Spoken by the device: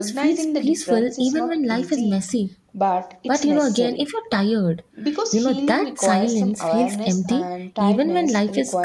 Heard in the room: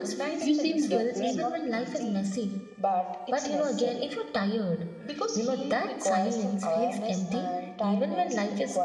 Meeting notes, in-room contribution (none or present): present